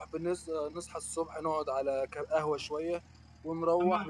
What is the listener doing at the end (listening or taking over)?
listening